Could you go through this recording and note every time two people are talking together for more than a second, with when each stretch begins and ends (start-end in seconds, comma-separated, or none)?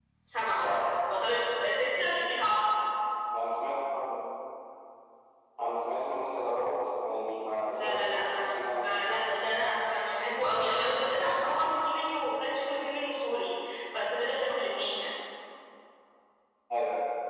7.7-9.0